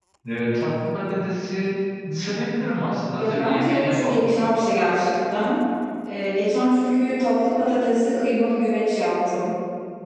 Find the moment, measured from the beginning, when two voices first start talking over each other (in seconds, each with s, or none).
3.2 s